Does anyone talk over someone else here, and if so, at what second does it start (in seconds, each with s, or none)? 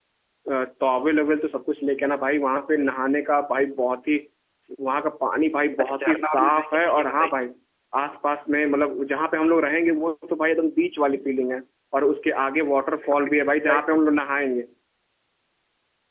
5.8 s